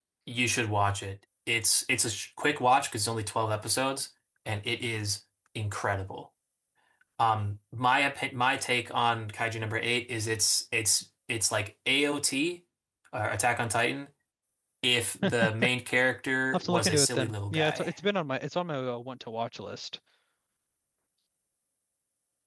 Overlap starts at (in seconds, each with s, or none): 16.5 s